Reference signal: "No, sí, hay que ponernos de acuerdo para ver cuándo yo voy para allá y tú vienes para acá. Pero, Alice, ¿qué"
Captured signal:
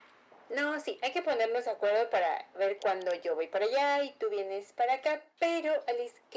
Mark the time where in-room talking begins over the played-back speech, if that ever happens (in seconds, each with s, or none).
none